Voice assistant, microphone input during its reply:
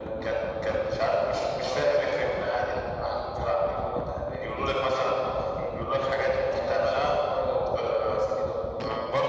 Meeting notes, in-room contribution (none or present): none